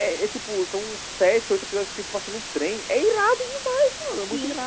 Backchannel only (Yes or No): No